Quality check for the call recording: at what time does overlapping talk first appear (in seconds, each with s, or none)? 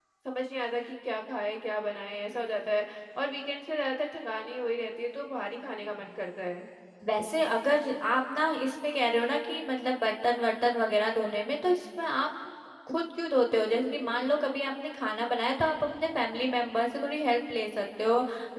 none